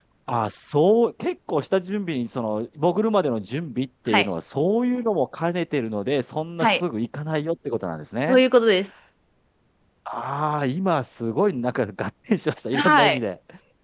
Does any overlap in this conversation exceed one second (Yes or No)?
No